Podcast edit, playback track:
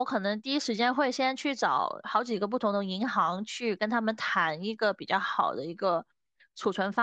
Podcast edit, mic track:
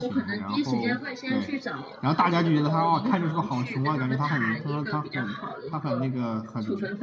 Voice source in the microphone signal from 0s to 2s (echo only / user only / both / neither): both